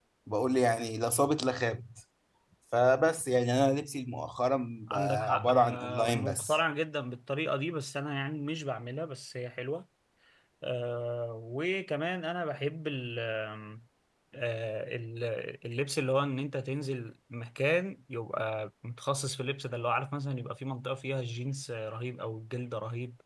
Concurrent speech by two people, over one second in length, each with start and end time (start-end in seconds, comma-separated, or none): 4.9-6.6